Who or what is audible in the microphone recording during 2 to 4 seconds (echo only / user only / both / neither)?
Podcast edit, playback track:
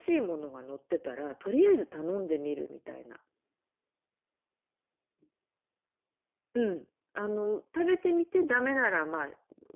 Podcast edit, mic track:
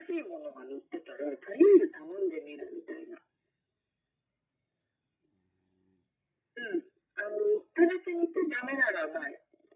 echo only